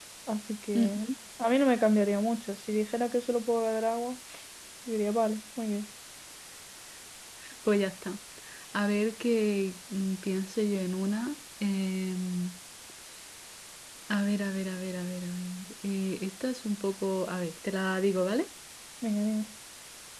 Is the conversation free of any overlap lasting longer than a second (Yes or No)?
Yes